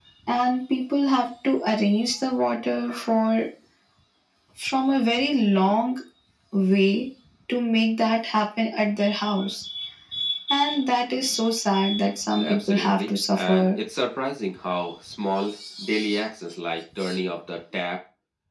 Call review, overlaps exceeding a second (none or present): present